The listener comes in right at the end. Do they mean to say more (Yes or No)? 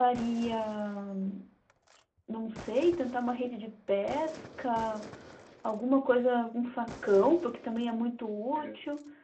No